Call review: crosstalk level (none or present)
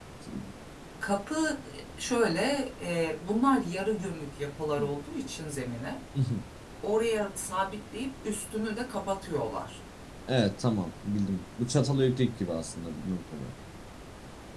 none